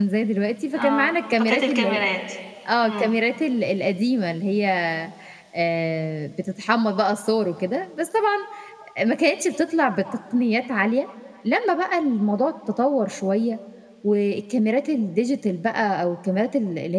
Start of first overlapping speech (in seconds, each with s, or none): 0.8 s